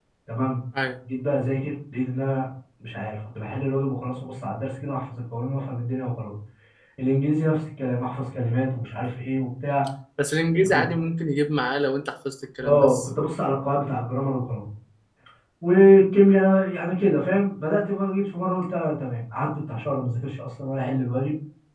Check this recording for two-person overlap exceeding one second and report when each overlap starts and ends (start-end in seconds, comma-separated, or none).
none